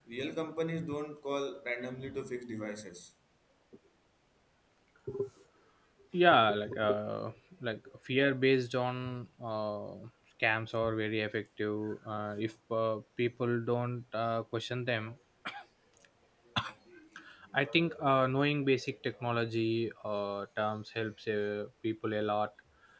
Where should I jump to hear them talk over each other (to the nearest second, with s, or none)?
none